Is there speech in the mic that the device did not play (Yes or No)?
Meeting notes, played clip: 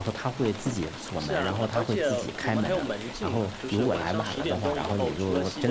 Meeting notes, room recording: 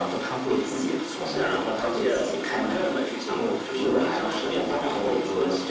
No